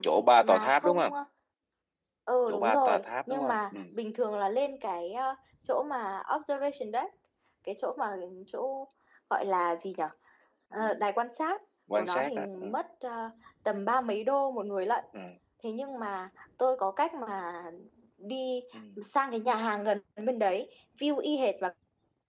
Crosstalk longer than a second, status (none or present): present